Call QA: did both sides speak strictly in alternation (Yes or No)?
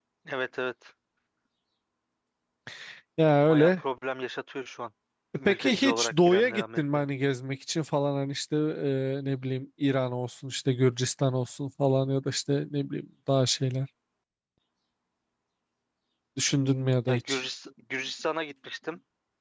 No